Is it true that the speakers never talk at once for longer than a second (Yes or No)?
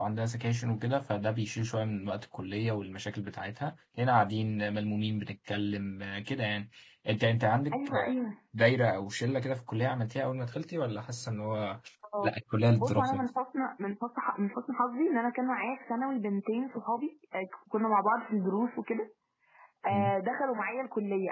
Yes